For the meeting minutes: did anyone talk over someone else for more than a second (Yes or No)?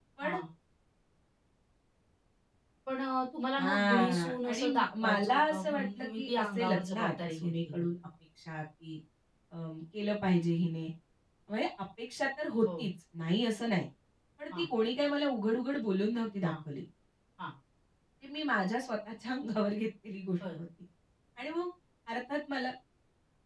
Yes